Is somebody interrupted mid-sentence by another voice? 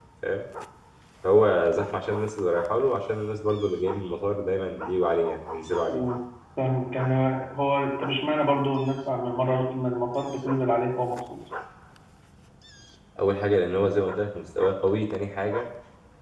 No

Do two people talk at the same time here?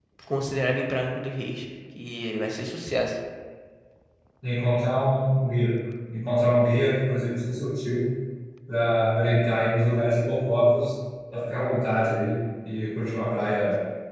No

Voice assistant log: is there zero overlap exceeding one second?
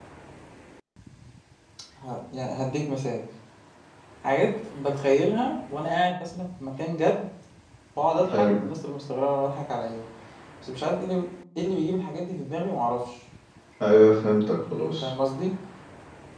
Yes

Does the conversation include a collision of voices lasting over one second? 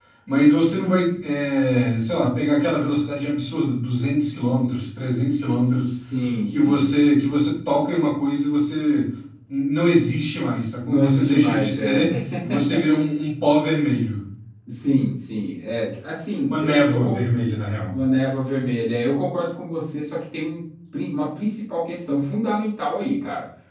Yes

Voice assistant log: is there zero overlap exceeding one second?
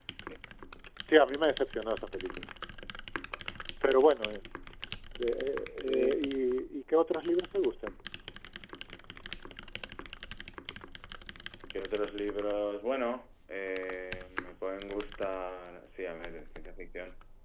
Yes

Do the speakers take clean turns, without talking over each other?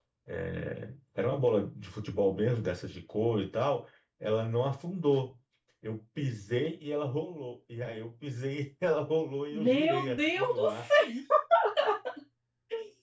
No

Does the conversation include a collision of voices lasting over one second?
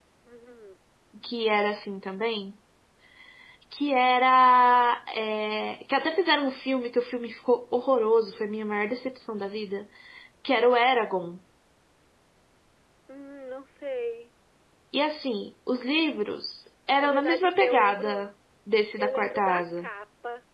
Yes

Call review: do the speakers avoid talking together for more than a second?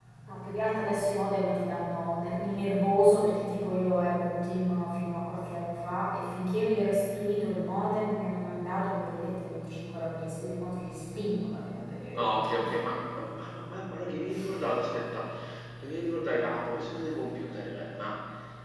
Yes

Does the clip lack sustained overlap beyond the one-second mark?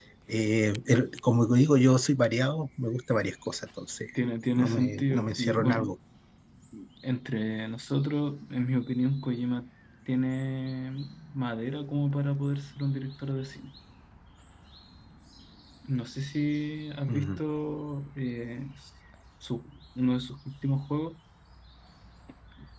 No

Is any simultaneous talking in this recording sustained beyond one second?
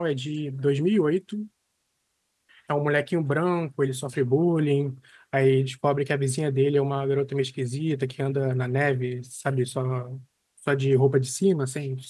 No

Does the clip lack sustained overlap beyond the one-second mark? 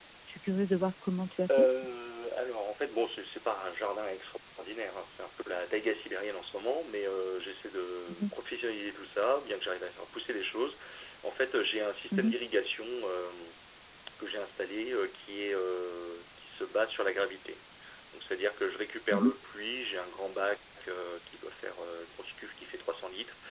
Yes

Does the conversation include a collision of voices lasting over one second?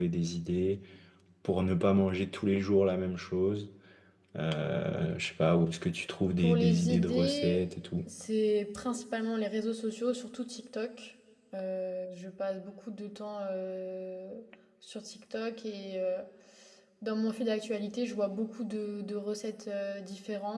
Yes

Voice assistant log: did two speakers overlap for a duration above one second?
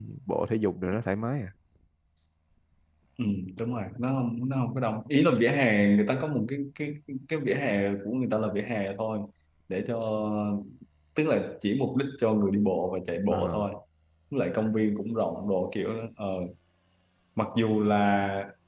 No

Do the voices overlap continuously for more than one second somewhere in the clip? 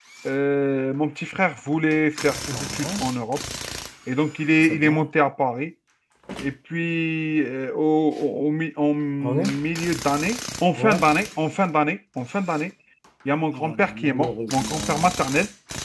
Yes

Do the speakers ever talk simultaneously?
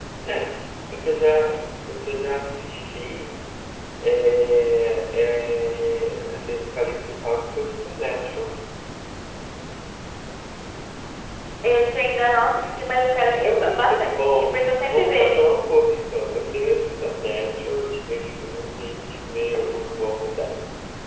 Yes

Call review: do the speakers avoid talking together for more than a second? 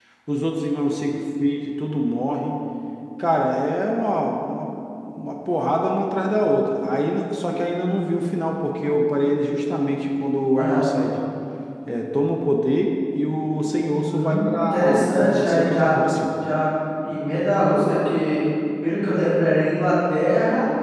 No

